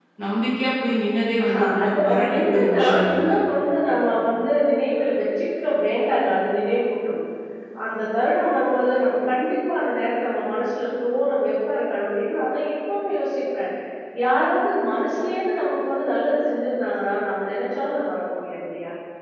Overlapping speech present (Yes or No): Yes